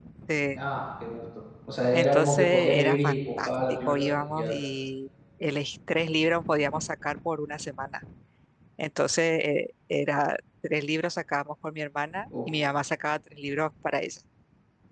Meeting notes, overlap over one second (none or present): present